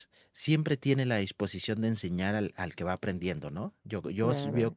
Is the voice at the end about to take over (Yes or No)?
Yes